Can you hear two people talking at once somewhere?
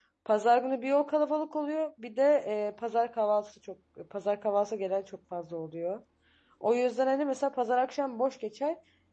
No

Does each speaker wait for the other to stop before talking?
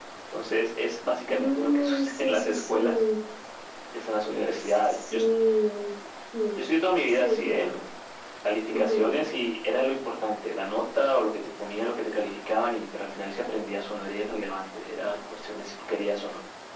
No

